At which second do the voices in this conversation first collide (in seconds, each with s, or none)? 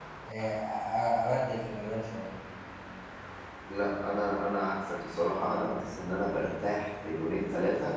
none